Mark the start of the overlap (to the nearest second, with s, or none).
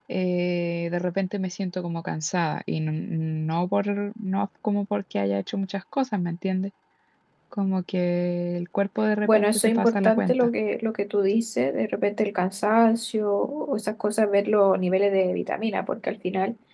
9 s